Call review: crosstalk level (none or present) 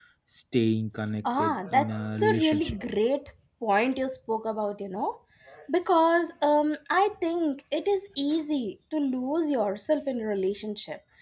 present